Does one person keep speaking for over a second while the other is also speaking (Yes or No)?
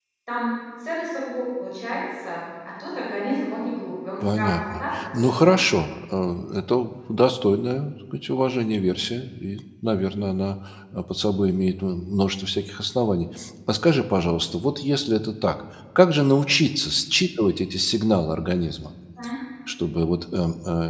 Yes